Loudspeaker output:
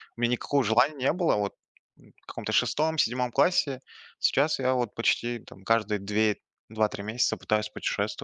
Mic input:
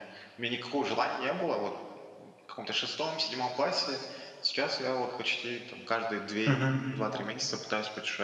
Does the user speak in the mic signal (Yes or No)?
Yes